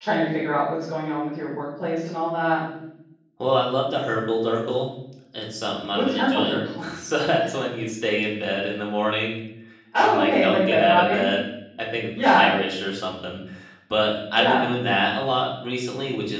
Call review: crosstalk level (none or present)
present